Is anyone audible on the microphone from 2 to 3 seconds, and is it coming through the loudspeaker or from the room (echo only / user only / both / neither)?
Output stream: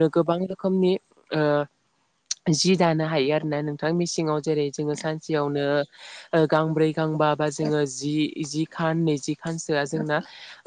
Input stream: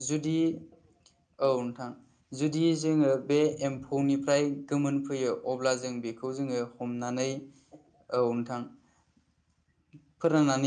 user only